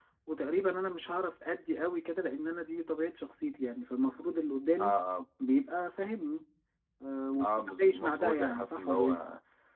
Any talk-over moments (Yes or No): Yes